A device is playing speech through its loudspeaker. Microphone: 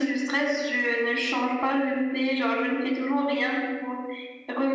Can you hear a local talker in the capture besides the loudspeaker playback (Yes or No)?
No